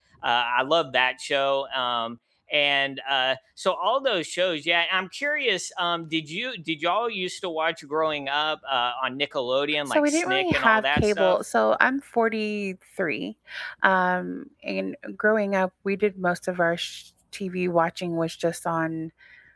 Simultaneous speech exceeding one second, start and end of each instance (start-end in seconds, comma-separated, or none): 9.9-11.4